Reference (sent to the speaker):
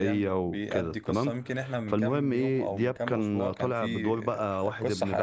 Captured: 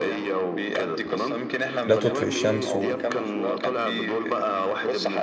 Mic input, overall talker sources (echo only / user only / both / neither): both